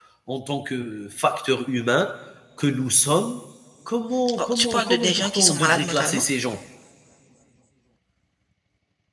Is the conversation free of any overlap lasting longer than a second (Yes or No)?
No